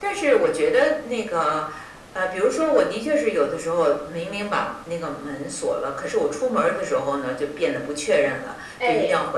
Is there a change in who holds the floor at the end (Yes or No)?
No